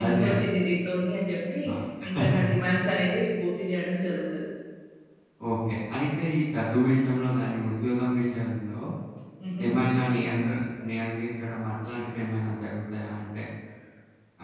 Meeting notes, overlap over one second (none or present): none